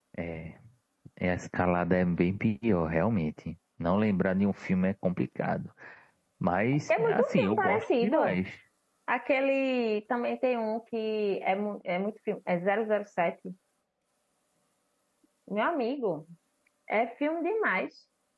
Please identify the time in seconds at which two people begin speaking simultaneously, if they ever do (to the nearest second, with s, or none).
7 s